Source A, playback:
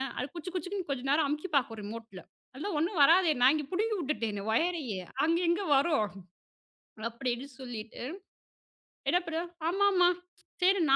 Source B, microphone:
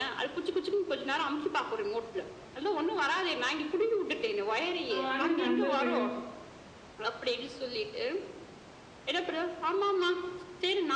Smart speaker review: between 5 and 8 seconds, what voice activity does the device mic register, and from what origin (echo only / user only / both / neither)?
both